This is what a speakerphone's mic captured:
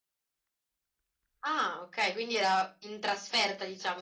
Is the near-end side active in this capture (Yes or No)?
Yes